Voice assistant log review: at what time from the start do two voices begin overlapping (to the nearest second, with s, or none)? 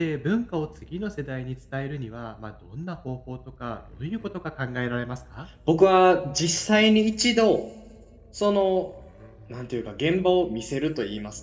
none